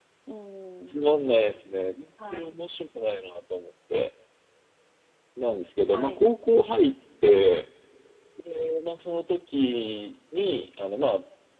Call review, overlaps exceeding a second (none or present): none